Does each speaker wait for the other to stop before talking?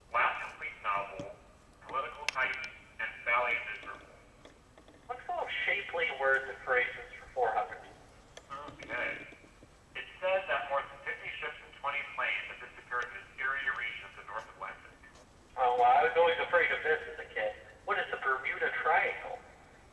Yes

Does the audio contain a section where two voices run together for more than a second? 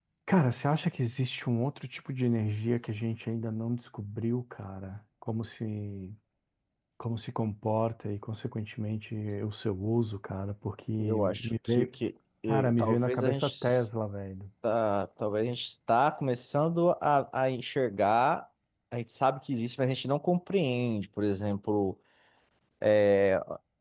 Yes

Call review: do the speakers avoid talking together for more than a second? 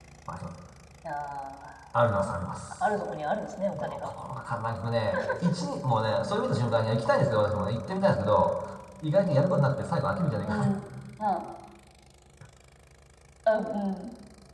Yes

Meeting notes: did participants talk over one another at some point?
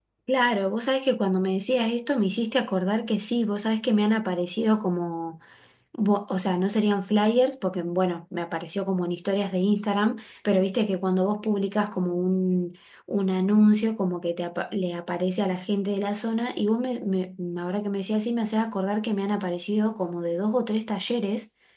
No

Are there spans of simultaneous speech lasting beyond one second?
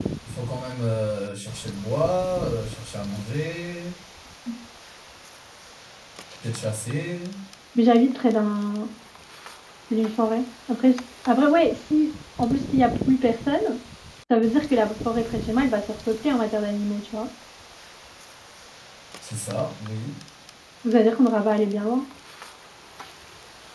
No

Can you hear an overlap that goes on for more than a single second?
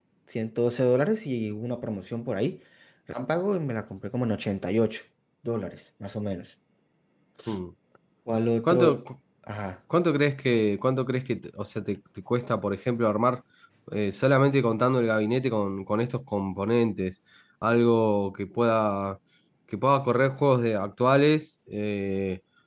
No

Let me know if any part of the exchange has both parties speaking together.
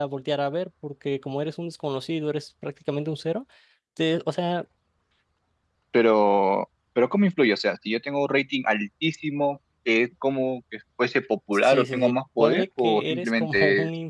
Yes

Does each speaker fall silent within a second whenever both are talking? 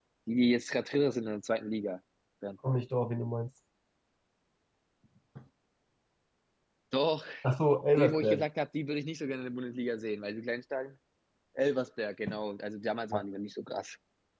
Yes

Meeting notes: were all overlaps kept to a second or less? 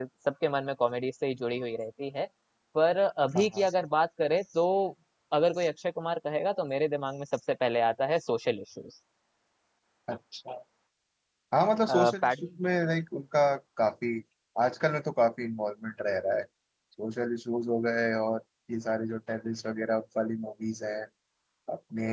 Yes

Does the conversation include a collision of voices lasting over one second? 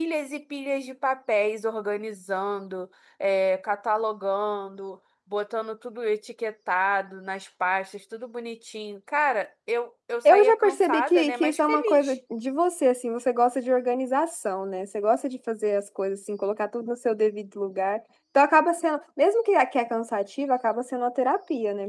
Yes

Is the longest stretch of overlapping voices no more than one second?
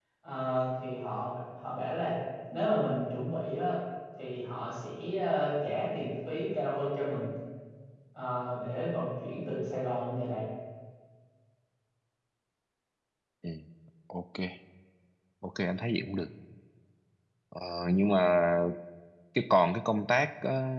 Yes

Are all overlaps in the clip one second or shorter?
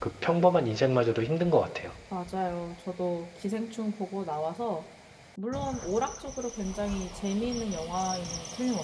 Yes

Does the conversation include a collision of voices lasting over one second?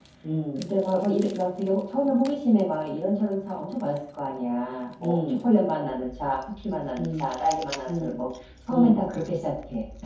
No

